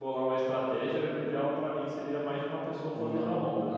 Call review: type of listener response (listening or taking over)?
taking over